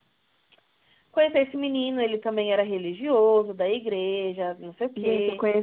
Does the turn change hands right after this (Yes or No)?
Yes